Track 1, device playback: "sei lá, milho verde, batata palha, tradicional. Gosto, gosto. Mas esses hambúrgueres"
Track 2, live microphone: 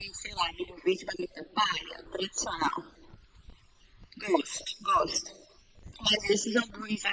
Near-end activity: none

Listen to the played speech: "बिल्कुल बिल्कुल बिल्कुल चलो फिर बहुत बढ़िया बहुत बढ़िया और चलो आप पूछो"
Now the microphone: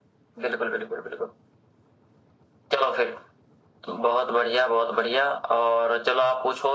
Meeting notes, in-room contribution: none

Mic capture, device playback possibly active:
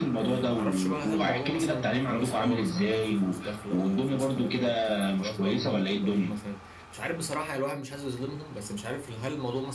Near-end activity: present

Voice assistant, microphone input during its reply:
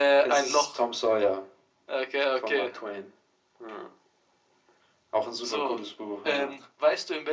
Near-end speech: none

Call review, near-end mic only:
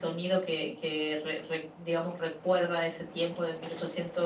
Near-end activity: none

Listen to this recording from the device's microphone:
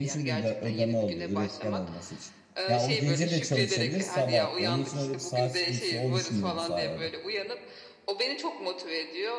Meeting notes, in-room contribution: present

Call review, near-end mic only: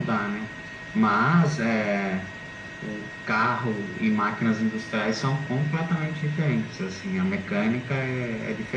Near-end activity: none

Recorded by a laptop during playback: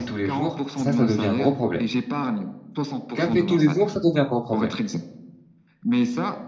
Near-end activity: present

